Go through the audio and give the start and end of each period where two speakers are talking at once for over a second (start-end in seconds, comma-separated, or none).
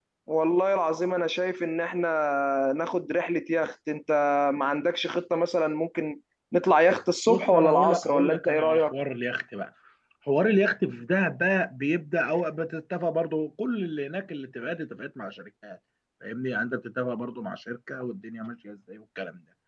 7.3-8.9